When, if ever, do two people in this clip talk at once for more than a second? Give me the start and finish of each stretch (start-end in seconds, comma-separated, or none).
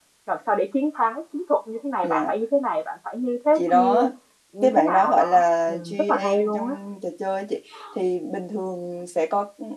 4.6-6.8